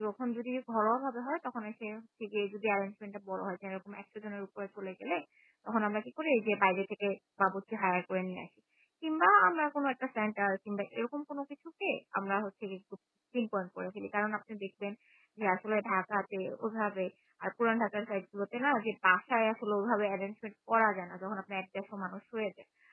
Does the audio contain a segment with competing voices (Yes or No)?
No